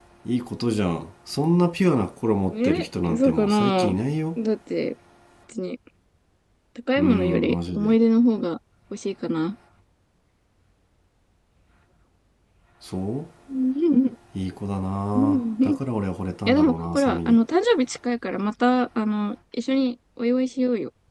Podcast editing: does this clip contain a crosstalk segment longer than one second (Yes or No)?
Yes